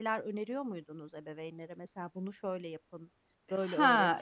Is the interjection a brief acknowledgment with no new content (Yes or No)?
No